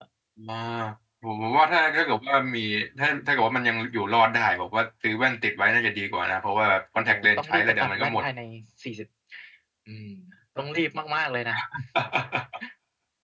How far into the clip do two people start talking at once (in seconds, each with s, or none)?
7.0 s